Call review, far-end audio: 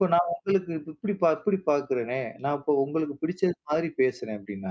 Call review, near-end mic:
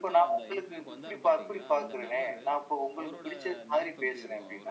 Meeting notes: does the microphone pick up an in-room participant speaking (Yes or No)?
Yes